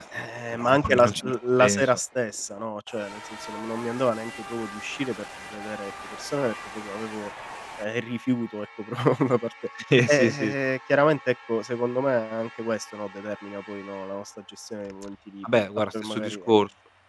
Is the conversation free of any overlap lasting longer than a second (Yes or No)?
No